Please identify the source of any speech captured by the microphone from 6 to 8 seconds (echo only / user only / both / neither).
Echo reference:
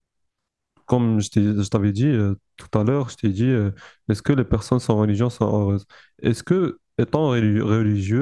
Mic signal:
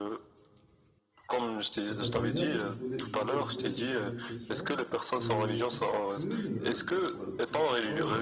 both